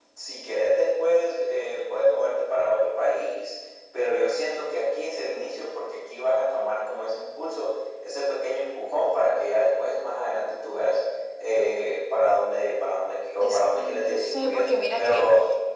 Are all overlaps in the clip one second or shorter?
No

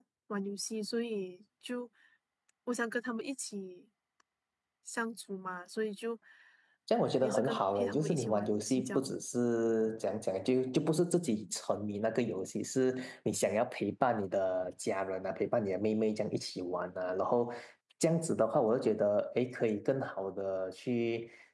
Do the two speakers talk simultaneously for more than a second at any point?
Yes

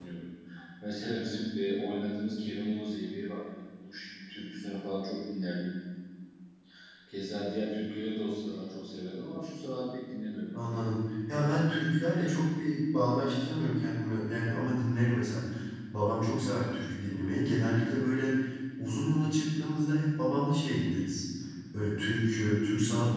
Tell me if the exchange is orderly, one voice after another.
Yes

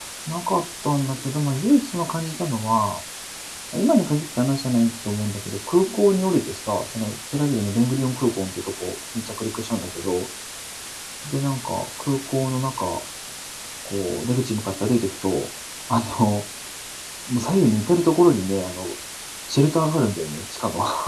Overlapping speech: No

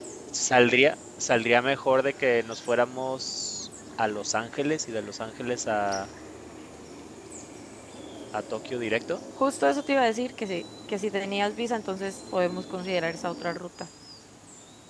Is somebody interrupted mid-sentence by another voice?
No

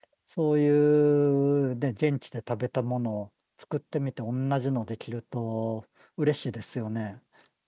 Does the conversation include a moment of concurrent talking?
No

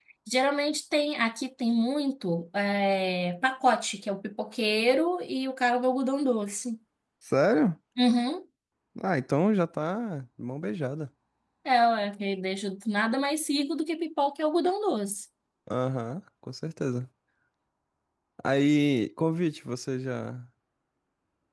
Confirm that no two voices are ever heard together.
Yes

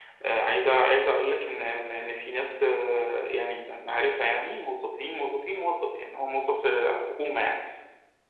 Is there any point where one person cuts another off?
No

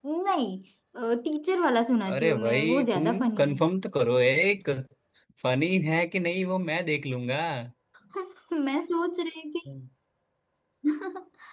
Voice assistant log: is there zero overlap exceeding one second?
No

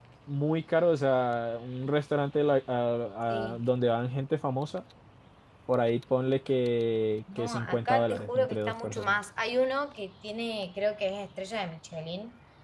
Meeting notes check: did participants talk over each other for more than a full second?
Yes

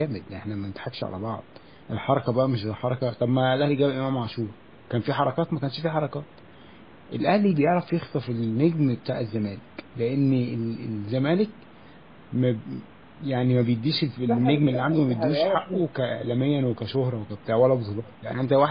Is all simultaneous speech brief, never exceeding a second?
No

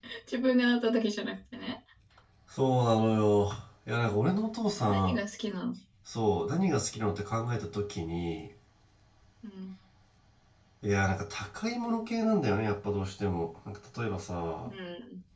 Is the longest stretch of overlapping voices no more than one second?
Yes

